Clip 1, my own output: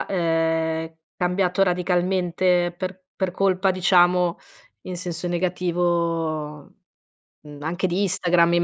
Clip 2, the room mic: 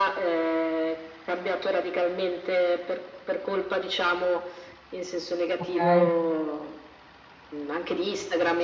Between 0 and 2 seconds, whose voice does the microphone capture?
echo only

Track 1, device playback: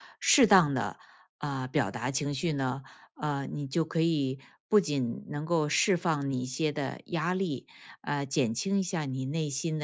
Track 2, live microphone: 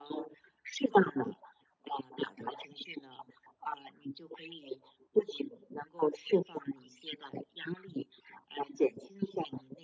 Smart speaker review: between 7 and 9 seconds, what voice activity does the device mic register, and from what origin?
echo only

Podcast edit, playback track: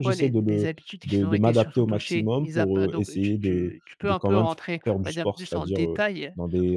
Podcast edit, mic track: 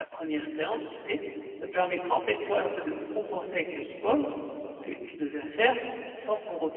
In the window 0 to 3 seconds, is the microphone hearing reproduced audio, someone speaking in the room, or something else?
user only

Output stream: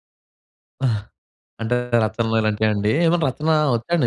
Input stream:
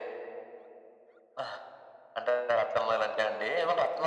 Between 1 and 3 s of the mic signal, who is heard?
echo only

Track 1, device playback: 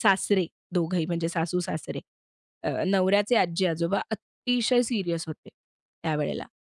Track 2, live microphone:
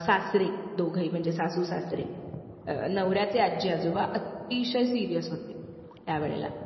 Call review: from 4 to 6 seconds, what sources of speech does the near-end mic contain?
echo only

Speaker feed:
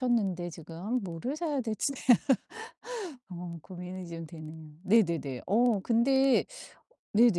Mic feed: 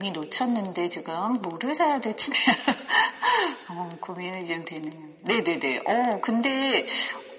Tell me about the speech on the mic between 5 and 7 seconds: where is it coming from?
echo only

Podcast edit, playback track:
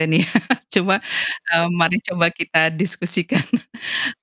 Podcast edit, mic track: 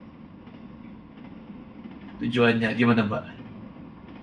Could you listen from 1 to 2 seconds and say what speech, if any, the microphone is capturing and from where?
neither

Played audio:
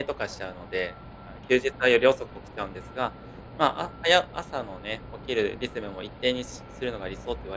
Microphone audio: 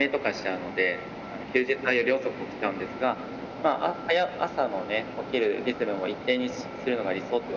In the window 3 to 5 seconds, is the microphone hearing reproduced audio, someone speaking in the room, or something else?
echo only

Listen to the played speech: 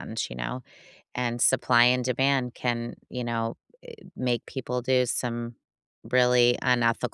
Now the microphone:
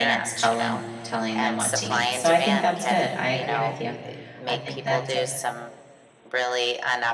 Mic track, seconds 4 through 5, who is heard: both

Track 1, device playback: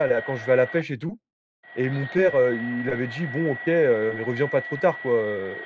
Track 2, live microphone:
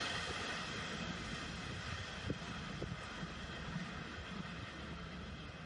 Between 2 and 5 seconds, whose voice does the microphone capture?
neither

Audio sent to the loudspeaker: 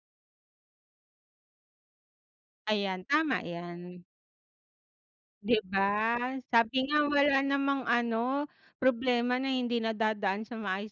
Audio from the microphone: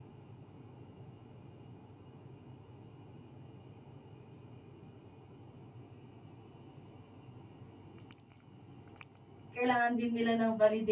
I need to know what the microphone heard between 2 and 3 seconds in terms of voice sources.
neither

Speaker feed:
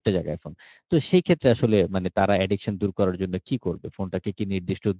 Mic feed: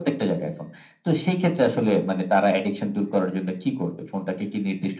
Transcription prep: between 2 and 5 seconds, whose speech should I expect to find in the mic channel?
echo only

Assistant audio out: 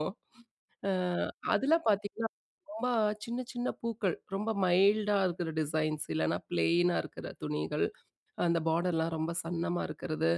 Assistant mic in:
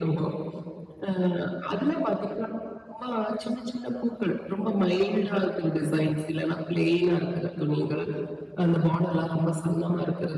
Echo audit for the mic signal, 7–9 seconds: echo only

